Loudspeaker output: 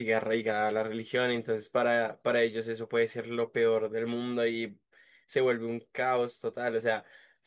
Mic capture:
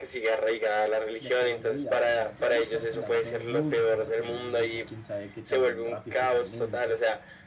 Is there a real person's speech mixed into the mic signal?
Yes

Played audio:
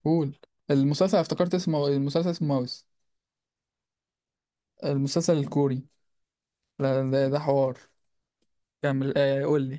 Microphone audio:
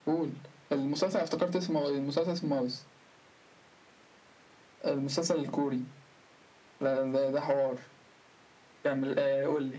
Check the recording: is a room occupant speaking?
No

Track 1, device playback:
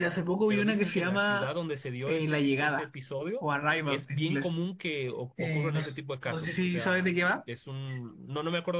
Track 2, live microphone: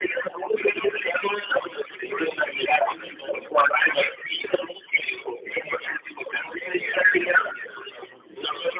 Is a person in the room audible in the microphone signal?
Yes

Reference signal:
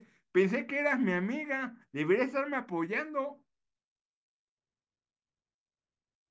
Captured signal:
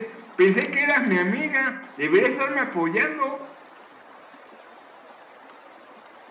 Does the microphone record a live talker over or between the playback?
No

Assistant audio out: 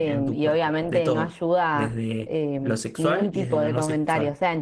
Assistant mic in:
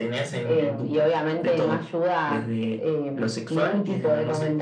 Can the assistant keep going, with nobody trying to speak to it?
Yes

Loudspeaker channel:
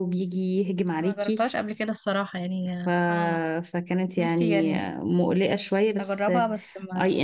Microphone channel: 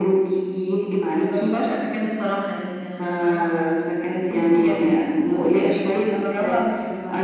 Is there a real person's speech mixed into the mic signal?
No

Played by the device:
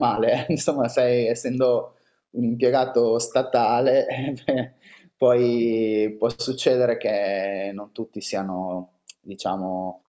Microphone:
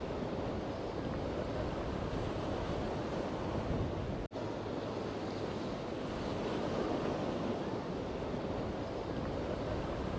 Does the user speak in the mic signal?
No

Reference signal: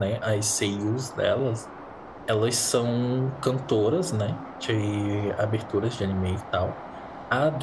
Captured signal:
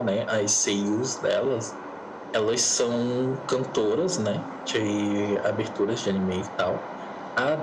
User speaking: No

